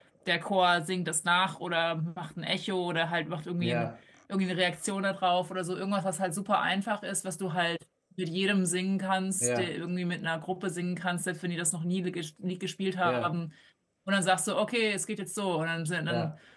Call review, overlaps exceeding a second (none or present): none